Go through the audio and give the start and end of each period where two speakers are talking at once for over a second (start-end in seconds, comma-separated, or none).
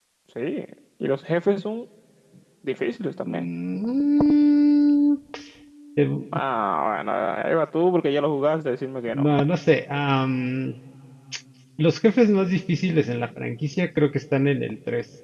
none